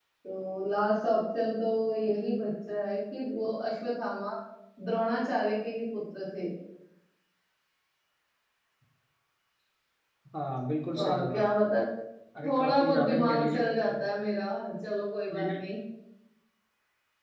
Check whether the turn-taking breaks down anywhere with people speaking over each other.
Yes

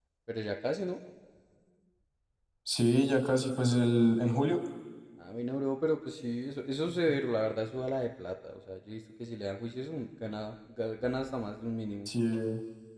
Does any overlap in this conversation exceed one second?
No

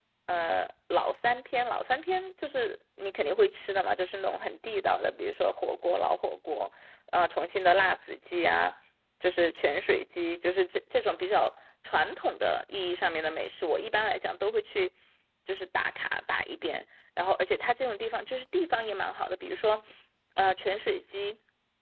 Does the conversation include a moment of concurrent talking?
No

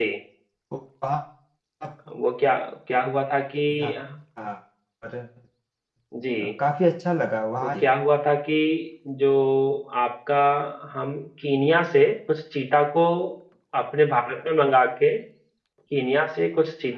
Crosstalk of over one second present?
No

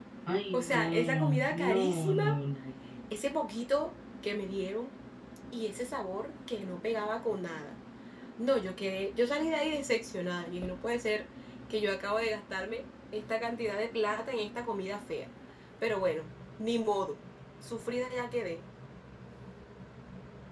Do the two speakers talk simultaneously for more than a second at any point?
Yes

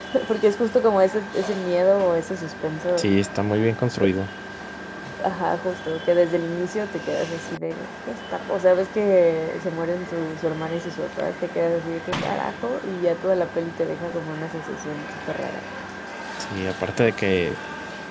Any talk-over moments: No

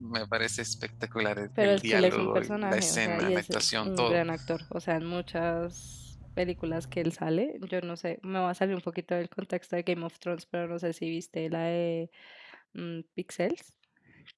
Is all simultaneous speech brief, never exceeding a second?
No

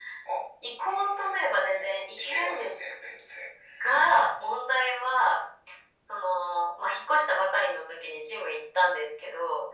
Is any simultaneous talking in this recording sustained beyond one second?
Yes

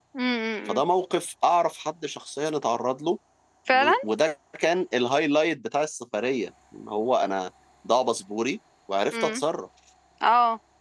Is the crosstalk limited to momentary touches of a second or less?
Yes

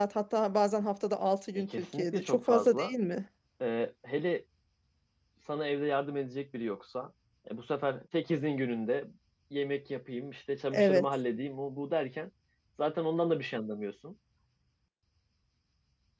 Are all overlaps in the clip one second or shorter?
No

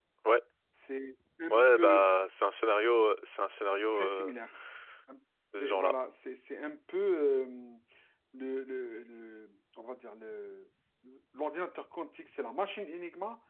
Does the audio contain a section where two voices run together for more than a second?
No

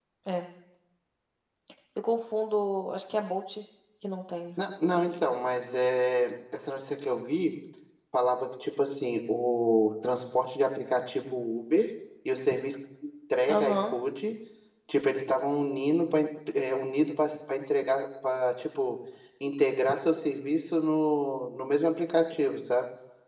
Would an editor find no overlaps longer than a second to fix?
Yes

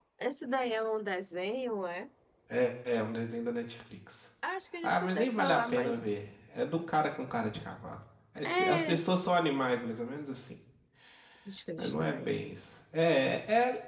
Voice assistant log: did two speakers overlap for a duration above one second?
Yes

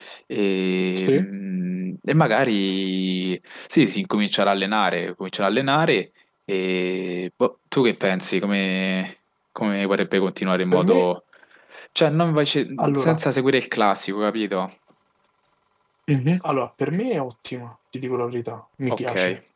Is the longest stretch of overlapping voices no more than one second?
Yes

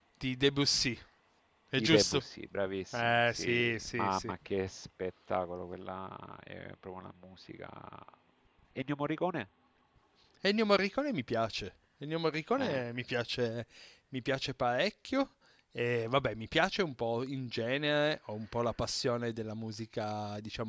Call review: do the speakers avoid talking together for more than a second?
No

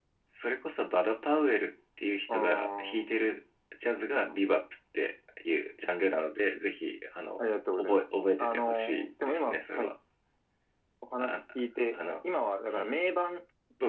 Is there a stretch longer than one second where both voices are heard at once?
Yes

